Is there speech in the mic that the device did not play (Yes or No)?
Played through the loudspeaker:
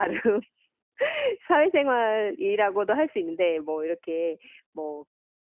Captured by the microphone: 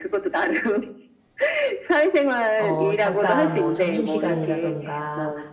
Yes